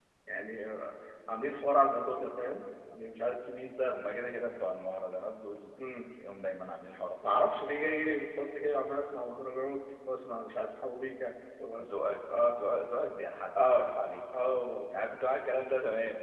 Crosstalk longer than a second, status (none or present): none